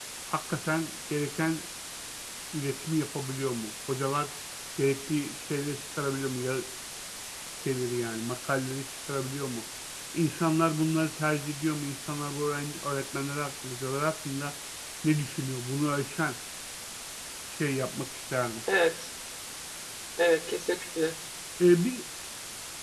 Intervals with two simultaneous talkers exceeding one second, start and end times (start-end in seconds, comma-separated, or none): none